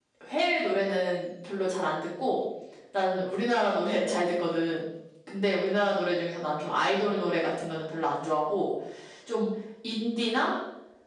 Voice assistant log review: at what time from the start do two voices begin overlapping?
none

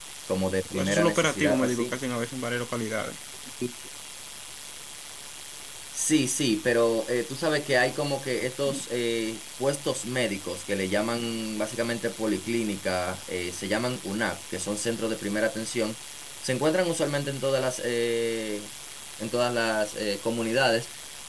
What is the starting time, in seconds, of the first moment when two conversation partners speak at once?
0.7 s

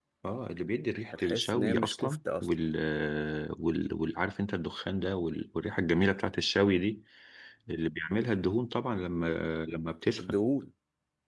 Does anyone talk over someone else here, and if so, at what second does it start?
1.1 s

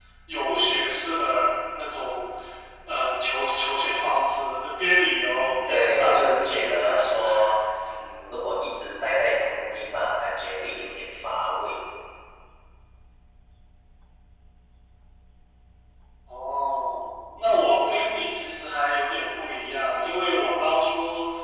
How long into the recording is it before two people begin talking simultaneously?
5.7 s

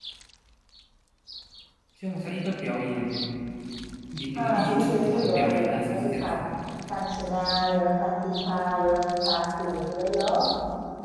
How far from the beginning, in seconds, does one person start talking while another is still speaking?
4.3 s

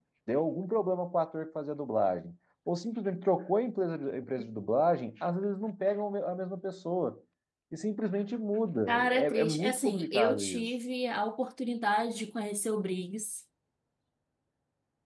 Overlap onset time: 8.9 s

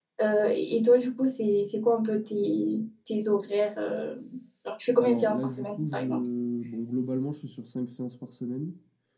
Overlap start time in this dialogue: 5.0 s

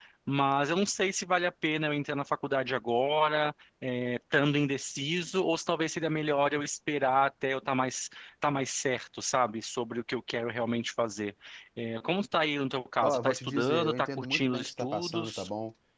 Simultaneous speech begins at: 13.0 s

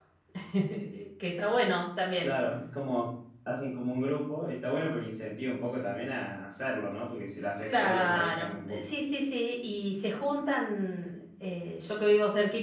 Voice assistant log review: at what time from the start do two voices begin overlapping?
7.6 s

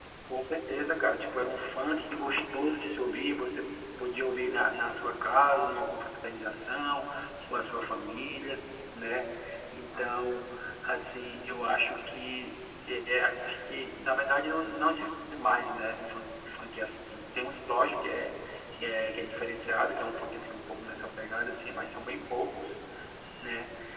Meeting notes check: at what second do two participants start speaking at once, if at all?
none

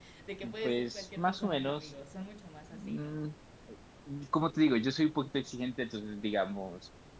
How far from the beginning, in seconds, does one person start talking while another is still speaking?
0.6 s

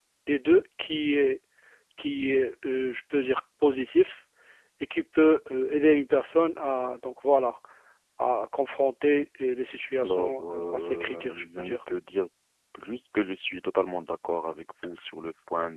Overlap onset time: 10.0 s

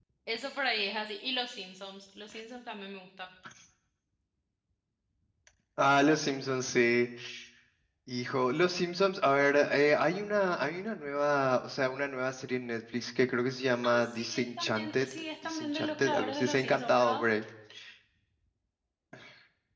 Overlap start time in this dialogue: 13.8 s

